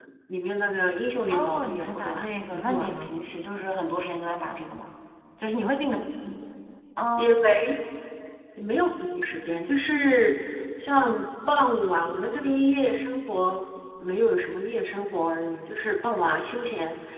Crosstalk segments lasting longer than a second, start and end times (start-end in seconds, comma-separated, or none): 1.3-3.1